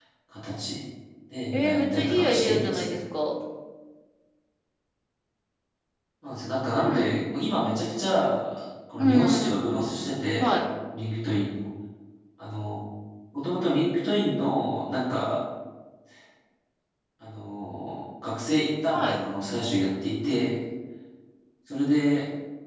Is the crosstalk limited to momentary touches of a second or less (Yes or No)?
No